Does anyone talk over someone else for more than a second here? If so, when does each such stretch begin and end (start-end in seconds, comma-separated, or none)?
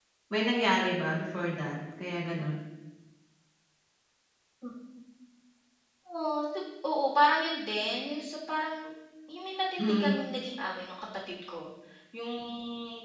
none